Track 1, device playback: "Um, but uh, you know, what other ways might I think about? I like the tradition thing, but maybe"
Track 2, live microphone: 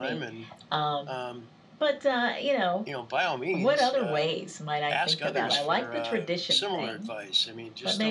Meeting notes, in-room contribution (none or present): present